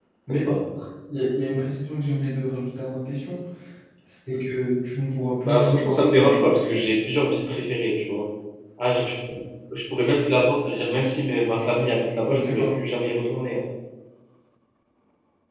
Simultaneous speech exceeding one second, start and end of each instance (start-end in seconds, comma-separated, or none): 5.4-6.9